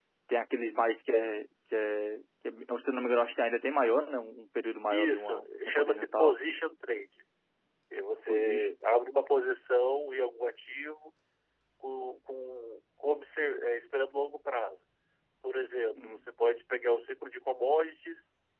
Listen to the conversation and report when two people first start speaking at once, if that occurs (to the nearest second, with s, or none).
5 s